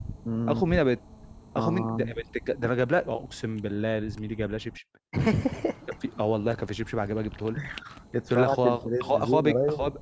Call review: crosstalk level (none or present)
present